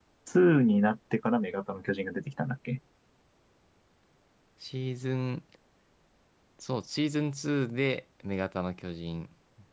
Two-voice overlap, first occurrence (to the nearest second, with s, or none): none